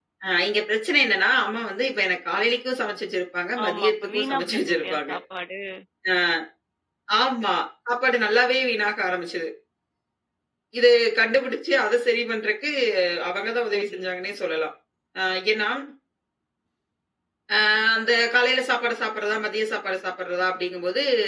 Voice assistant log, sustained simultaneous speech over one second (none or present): present